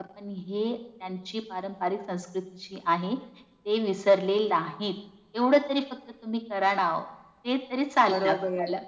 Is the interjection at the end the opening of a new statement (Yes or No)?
Yes